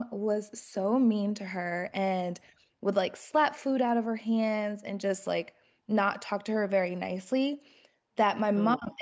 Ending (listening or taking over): listening